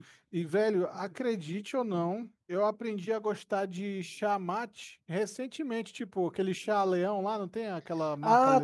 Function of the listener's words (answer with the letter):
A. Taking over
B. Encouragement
A